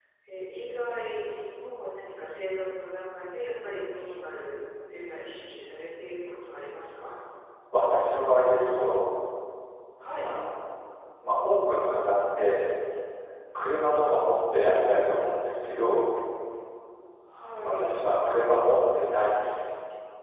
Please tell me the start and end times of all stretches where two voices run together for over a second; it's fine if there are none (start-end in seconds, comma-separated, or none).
none